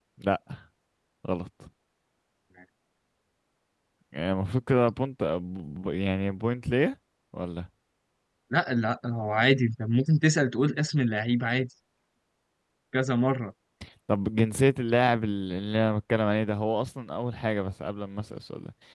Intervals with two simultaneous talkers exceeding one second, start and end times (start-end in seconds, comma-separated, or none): none